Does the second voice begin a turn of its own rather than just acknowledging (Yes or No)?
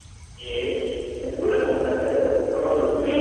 Yes